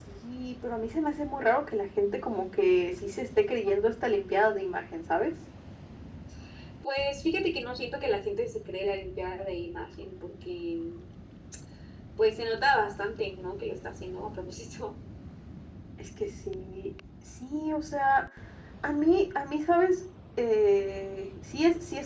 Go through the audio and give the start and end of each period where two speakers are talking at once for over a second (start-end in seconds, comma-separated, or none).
none